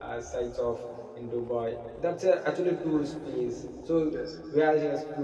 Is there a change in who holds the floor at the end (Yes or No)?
No